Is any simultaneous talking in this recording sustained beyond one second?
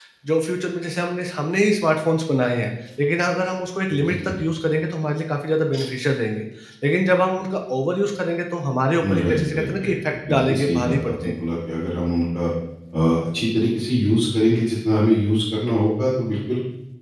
Yes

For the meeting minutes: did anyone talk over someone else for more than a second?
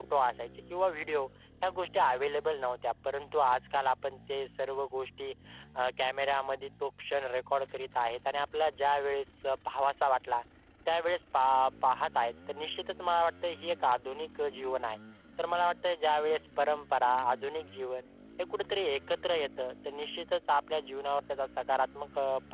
No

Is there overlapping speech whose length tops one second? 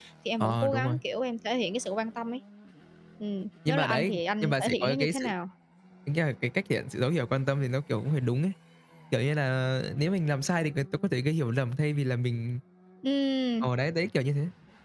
Yes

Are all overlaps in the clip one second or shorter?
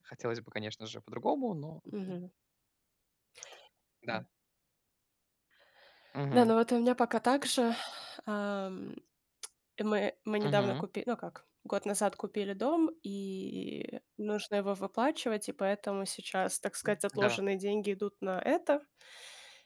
Yes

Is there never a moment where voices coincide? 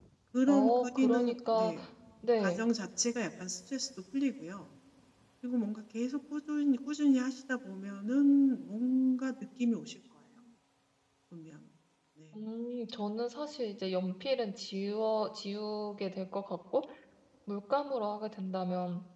No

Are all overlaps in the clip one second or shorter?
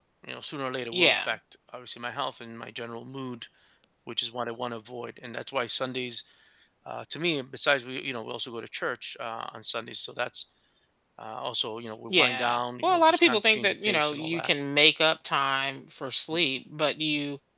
No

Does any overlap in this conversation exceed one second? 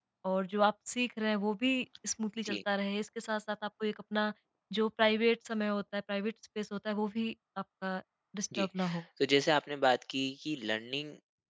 No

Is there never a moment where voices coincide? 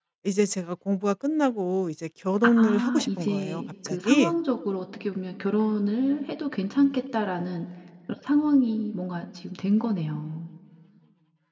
No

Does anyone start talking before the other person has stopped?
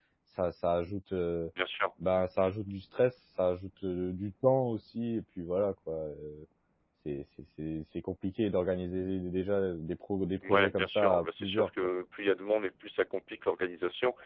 Yes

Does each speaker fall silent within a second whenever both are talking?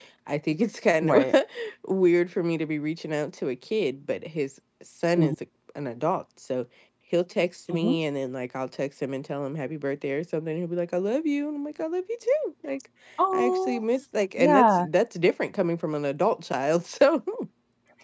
Yes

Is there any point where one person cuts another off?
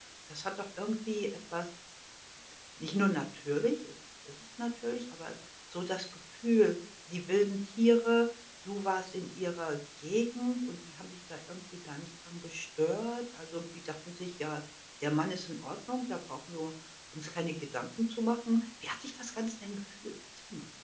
No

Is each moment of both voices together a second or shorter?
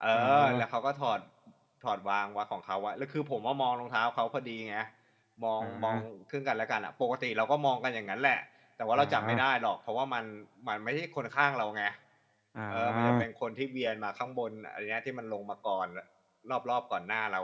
Yes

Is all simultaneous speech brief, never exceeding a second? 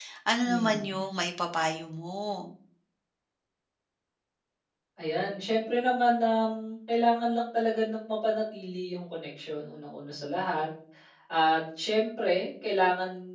Yes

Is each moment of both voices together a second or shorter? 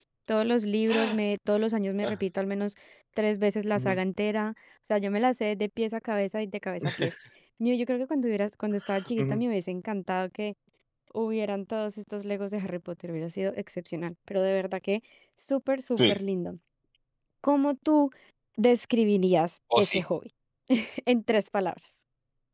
Yes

